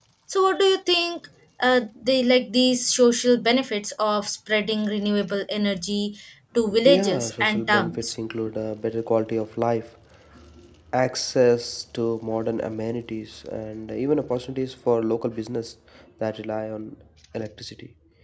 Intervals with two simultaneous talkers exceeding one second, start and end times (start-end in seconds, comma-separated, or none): 6.8-8.1